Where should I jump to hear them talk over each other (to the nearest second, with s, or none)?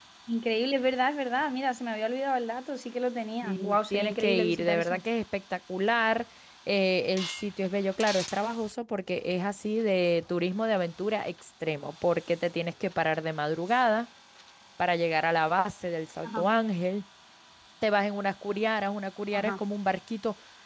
3 s